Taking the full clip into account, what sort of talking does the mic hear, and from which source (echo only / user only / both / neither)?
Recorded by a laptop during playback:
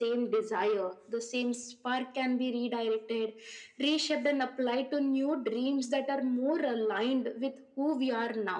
echo only